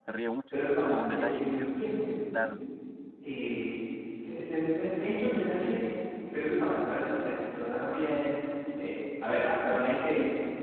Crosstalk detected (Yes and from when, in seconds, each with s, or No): Yes, from 0.5 s